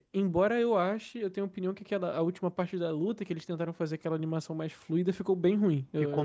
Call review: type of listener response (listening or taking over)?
taking over